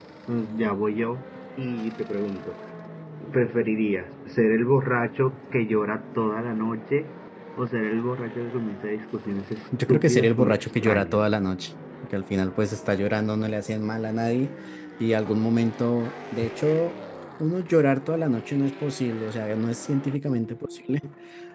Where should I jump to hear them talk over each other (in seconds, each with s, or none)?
9.7 s